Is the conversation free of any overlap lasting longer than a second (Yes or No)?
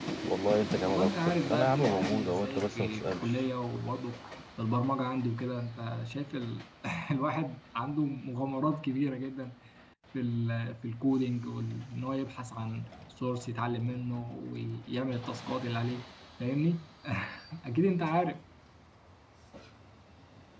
No